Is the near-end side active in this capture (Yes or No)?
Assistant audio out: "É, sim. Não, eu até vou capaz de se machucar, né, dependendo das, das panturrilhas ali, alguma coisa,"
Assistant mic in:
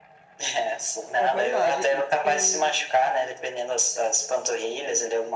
Yes